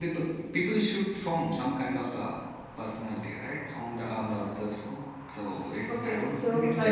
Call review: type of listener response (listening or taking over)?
taking over